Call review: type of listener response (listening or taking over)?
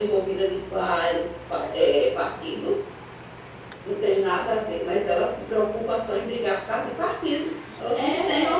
taking over